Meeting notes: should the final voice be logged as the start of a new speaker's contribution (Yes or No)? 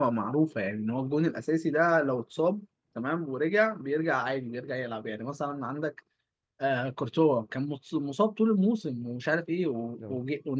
No